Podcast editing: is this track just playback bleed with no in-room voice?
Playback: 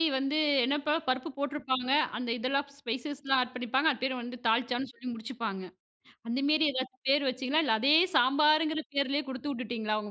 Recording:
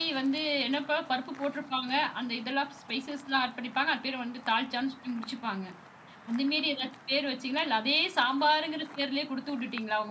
Yes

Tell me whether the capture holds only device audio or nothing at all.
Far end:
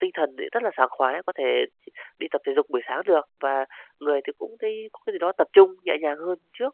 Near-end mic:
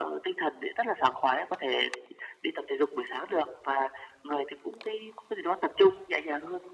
Yes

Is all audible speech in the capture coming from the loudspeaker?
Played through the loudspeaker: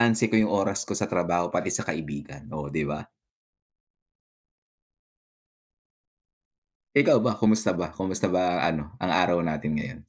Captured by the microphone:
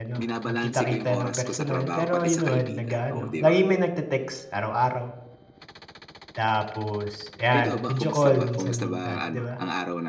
No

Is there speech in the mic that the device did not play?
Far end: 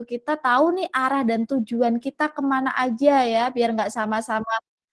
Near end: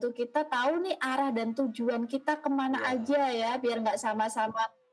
Yes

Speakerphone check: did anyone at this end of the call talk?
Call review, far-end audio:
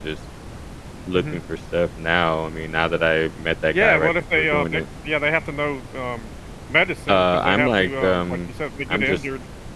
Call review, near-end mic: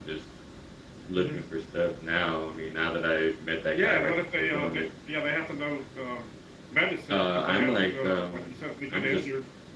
No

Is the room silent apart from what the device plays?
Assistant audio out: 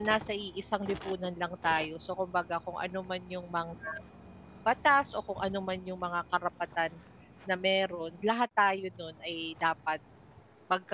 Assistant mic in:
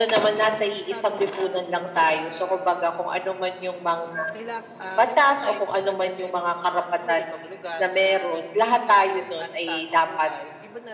No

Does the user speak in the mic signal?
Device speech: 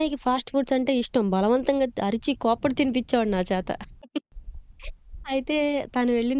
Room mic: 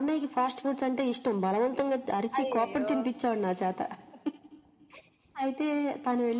Yes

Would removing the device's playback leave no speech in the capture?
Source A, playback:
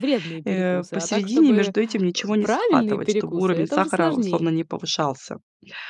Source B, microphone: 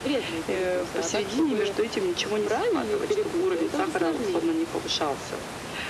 Yes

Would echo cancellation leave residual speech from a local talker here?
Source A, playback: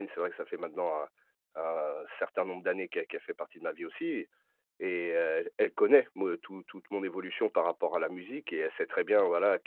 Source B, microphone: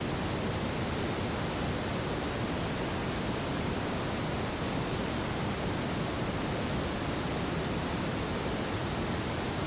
No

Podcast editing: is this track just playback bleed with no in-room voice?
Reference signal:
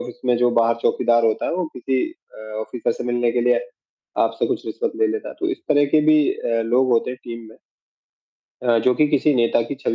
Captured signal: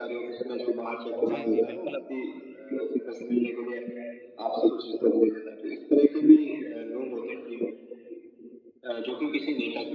No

